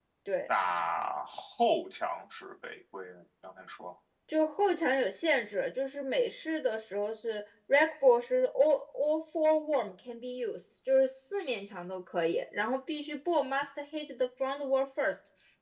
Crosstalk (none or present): none